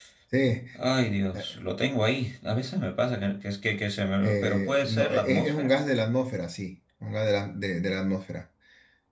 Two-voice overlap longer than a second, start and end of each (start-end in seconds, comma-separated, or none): 4.2-5.7